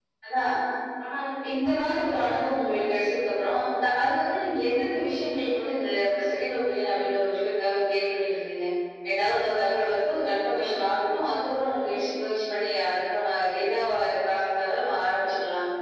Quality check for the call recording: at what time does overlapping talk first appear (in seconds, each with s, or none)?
1.5 s